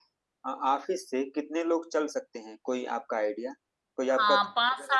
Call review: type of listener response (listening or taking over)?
taking over